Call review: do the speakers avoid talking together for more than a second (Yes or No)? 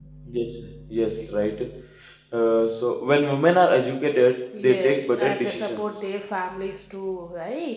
No